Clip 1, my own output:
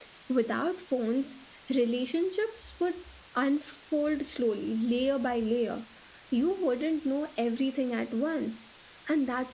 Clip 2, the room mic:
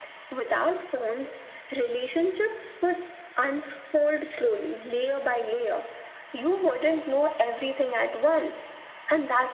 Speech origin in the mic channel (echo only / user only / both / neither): echo only